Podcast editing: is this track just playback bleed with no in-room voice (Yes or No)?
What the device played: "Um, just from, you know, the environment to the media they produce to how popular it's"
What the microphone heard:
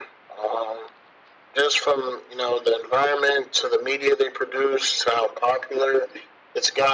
Yes